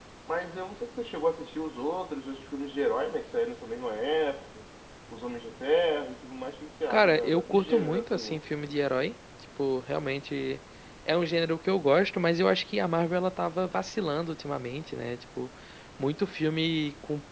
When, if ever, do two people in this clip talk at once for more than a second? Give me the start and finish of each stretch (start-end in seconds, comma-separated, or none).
6.9-8.4